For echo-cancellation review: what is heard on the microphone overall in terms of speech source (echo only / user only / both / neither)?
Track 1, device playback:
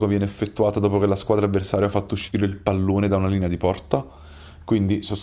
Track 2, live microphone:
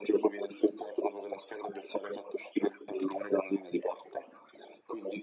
echo only